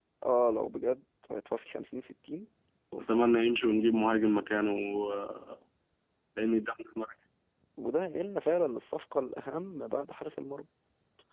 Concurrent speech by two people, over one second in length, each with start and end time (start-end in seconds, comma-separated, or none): none